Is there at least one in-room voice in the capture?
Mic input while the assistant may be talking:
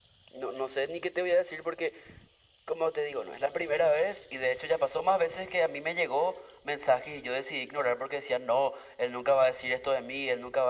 No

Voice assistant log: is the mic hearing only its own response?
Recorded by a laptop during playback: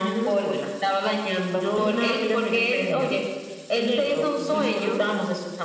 Yes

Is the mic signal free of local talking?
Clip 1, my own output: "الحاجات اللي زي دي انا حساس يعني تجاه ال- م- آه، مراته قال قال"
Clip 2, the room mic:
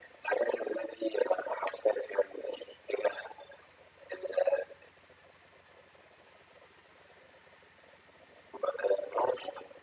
Yes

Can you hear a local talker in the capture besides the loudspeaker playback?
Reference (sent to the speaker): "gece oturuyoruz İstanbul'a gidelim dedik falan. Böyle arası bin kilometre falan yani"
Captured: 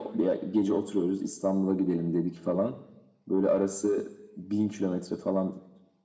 No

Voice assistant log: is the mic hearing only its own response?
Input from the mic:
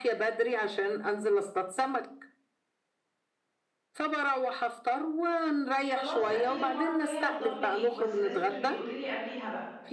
No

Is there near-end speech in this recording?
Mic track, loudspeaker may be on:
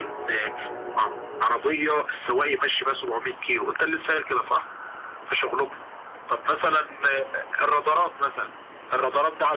No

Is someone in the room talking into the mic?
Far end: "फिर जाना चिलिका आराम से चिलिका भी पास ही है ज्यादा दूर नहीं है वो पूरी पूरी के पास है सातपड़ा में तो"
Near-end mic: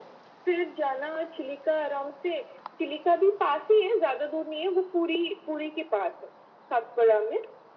No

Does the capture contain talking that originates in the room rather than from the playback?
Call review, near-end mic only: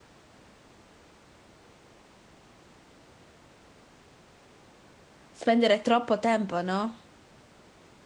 Yes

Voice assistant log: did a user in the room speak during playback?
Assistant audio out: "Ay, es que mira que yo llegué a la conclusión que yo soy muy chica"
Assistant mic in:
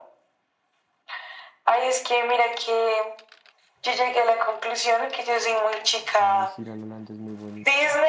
Yes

